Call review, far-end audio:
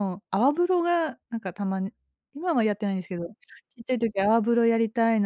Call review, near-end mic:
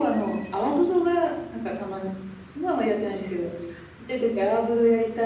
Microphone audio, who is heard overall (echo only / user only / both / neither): echo only